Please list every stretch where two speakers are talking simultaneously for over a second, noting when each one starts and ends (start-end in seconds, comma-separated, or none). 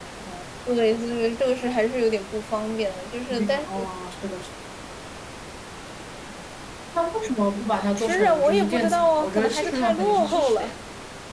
8.0-10.7